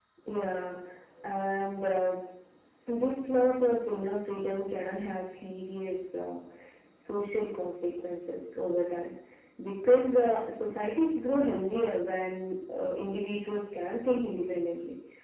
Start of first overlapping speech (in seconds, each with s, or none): none